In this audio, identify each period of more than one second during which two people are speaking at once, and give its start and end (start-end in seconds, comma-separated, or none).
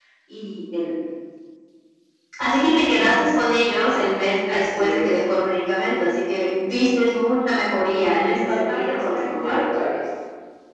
8.1-9.6